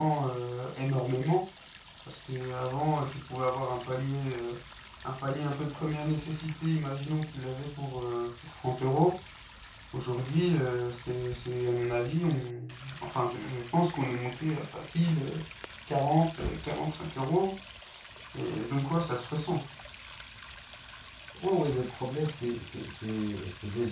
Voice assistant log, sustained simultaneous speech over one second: none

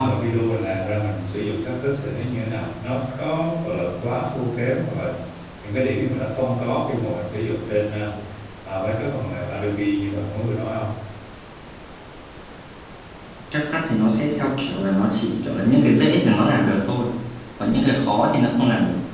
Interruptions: none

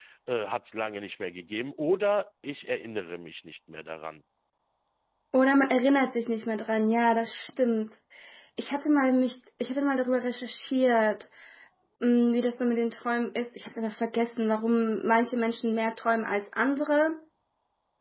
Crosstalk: none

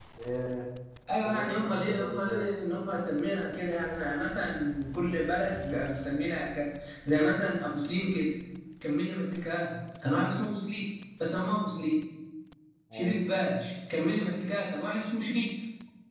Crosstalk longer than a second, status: present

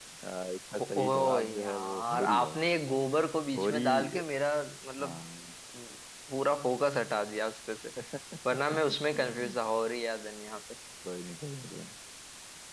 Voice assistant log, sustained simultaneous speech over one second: present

